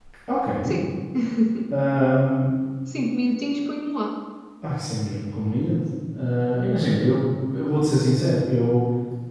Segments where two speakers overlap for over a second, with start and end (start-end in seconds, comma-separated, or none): none